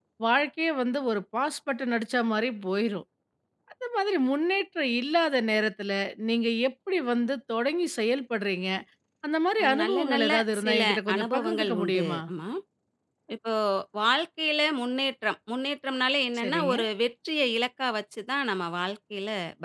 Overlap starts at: 10 s

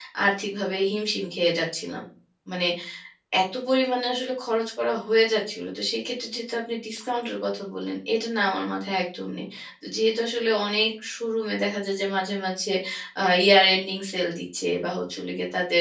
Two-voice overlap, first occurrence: none

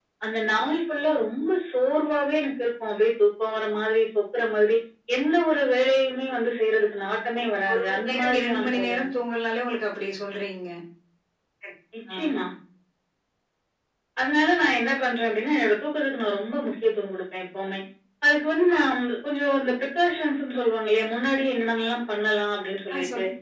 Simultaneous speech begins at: 8 s

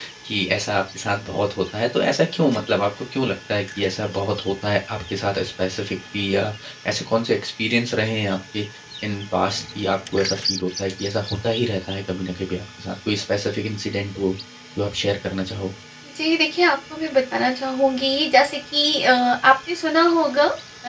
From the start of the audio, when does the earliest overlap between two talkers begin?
none

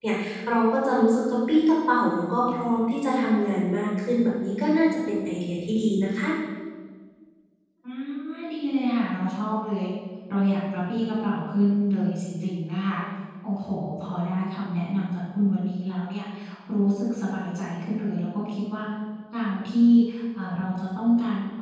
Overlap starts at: none

